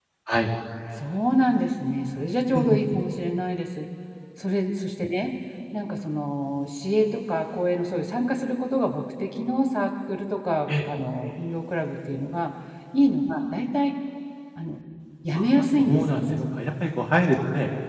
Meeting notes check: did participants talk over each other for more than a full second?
Yes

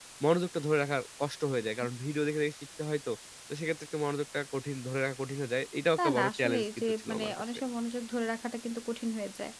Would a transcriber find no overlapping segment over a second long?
No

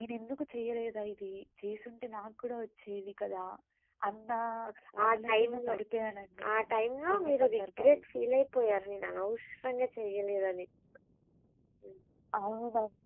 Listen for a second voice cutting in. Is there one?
Yes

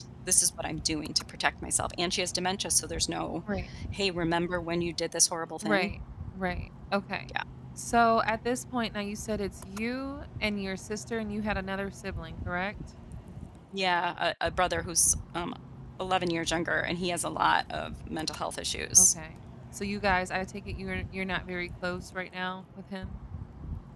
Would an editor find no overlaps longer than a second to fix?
Yes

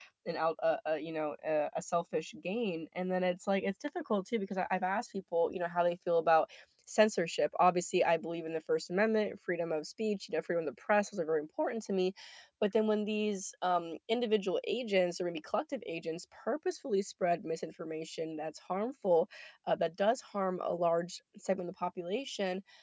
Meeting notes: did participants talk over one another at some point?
No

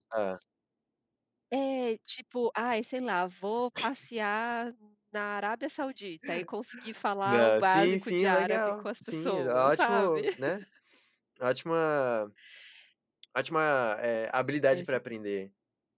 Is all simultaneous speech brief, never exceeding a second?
No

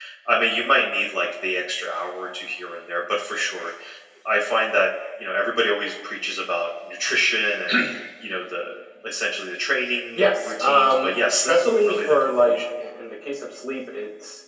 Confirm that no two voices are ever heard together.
No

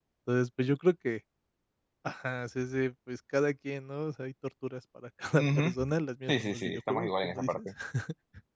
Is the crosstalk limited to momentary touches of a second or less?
No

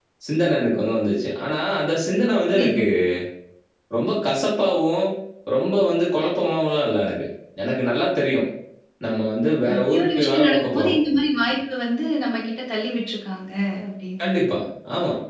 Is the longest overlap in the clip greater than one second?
Yes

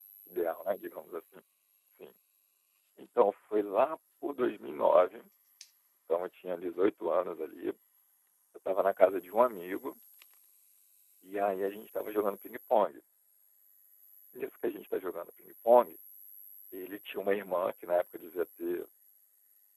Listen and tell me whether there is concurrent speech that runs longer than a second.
No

